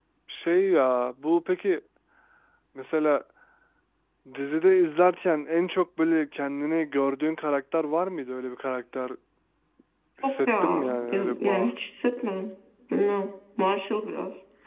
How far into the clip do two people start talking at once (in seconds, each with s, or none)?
10.4 s